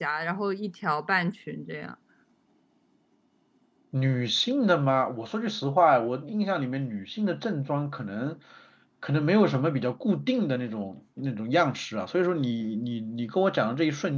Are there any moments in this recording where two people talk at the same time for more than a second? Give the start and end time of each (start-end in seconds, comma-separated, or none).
none